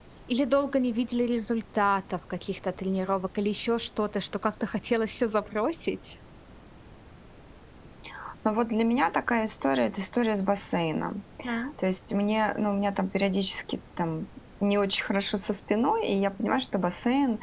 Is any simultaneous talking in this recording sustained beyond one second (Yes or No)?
No